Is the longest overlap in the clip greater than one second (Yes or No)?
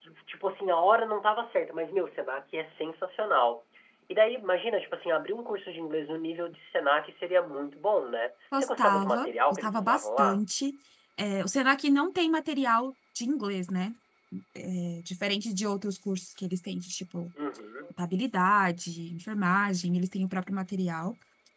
Yes